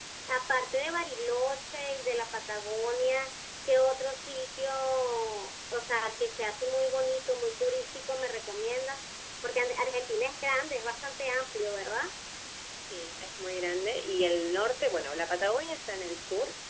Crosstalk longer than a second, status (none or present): none